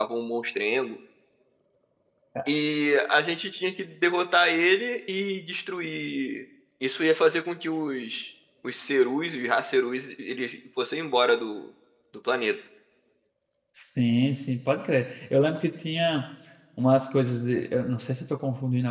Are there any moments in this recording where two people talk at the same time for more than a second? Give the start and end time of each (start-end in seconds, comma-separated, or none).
none